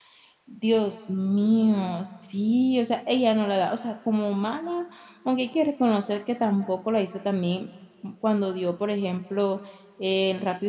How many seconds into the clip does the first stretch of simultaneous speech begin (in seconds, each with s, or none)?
none